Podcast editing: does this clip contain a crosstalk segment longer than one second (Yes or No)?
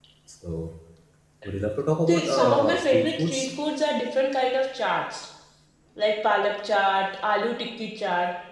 Yes